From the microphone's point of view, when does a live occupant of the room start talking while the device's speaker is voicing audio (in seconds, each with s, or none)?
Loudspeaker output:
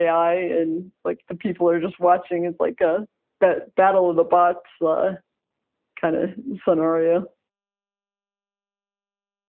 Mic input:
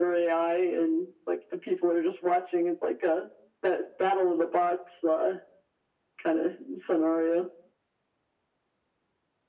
none